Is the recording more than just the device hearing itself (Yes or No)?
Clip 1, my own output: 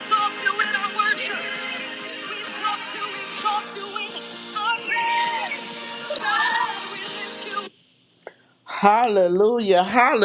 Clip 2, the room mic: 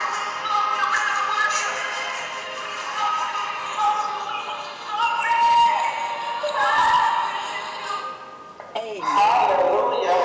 Yes